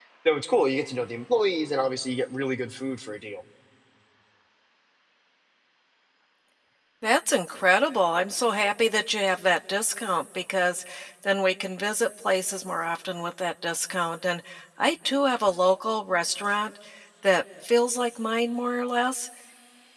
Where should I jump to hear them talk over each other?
none

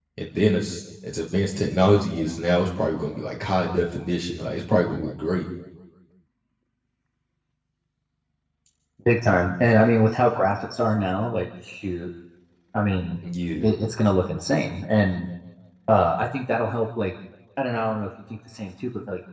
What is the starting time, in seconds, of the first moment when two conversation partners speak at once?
none

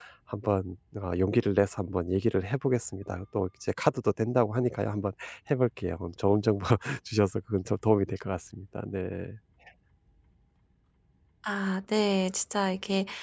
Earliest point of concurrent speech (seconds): none

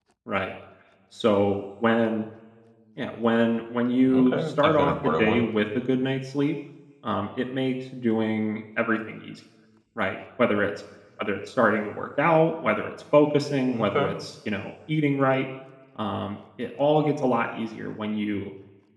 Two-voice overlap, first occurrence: 4.1 s

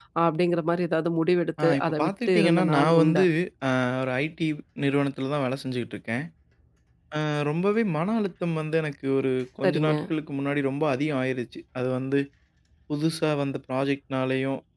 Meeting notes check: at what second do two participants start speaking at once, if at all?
1.6 s

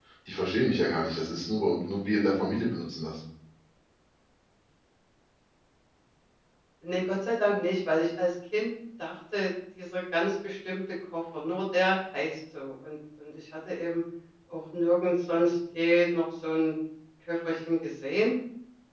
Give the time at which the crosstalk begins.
none

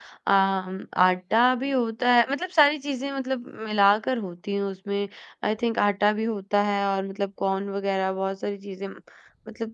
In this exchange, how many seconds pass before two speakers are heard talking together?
none

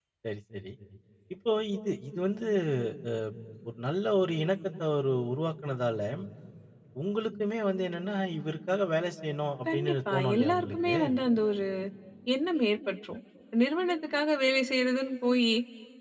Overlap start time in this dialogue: 9.7 s

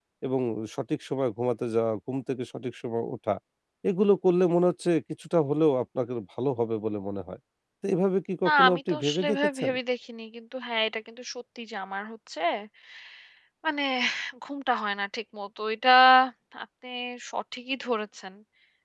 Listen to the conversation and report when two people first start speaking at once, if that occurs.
8.4 s

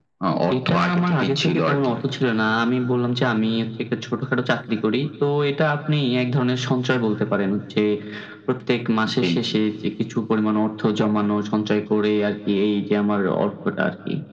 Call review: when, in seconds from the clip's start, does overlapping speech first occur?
0.7 s

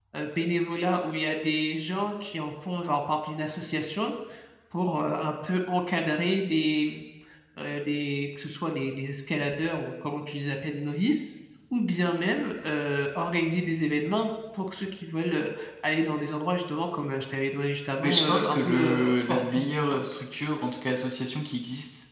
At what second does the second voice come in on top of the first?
18.0 s

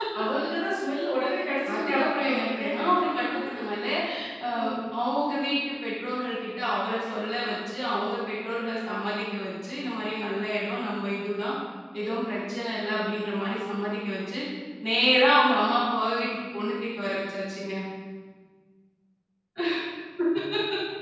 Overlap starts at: 1.7 s

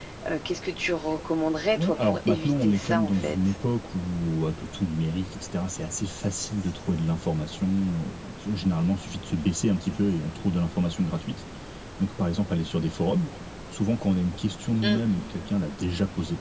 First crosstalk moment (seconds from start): 1.8 s

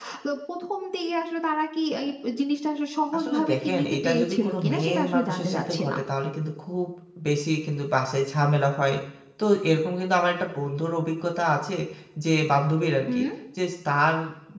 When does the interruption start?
3.1 s

